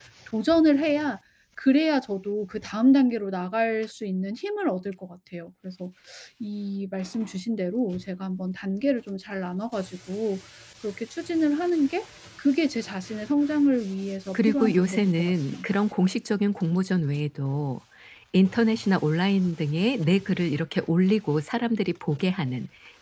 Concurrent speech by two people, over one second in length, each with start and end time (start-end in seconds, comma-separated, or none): 14.3-15.8